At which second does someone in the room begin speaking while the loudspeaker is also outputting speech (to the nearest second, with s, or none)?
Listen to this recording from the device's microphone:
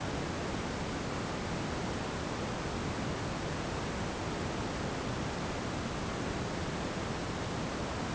none